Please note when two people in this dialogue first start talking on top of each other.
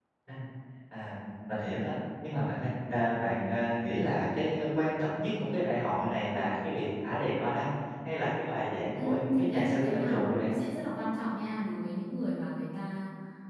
8.9 s

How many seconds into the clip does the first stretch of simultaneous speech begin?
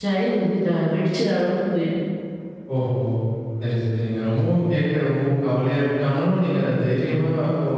none

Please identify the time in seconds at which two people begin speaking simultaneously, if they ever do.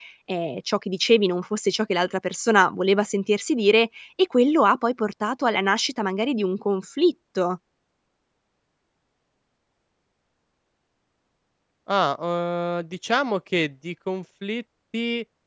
none

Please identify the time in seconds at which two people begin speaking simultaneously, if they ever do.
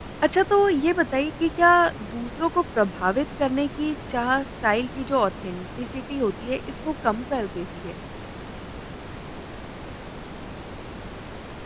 none

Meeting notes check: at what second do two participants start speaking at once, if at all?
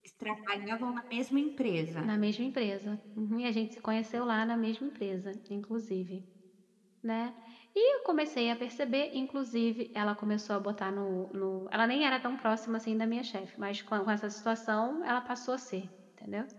none

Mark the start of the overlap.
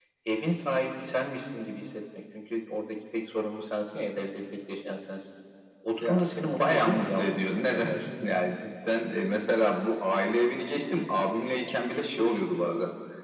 6.0 s

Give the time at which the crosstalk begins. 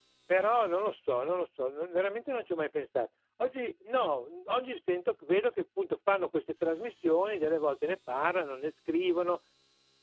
none

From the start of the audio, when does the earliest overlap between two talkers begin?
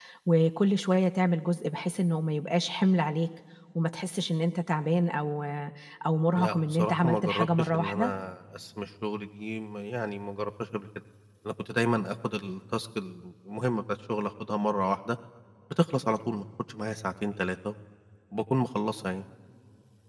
6.3 s

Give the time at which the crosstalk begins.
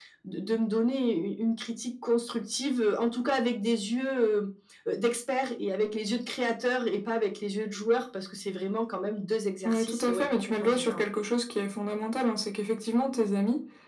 9.6 s

